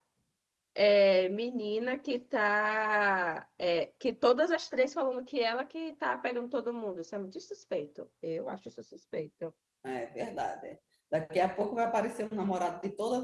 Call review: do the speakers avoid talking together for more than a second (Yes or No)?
Yes